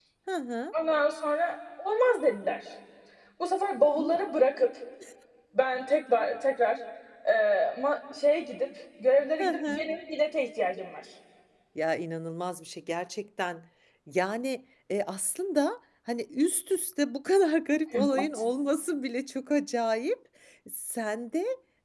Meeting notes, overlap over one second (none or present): none